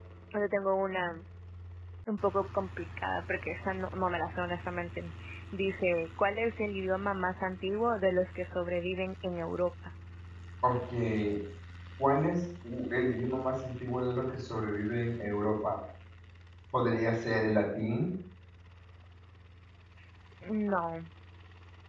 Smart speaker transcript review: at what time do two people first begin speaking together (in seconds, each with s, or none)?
none